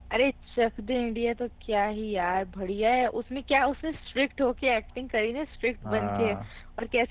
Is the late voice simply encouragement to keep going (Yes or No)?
Yes